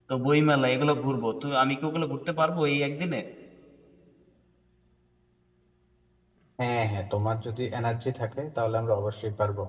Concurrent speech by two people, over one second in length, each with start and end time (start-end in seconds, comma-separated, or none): none